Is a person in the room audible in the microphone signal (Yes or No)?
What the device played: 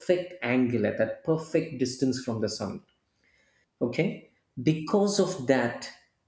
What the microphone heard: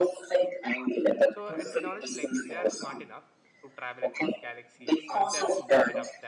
Yes